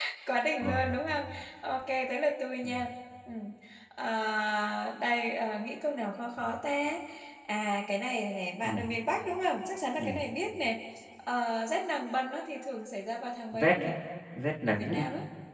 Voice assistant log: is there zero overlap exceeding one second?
Yes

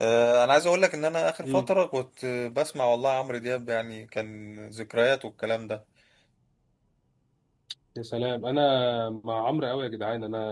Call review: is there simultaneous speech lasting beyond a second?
No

